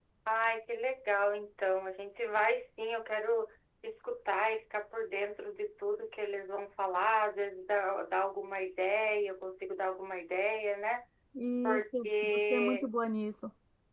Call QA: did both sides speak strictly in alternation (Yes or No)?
No